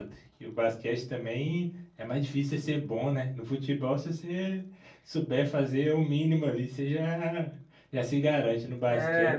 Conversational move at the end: taking over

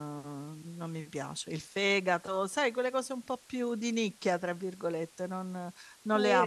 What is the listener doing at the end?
taking over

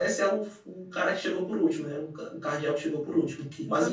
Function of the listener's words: taking over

